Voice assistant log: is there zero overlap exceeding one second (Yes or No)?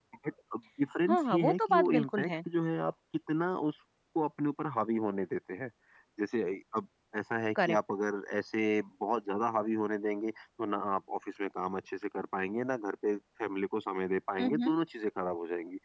No